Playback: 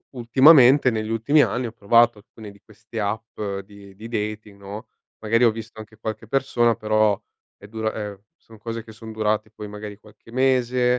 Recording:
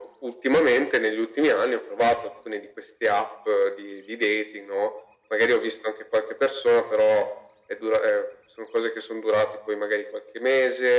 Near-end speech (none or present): none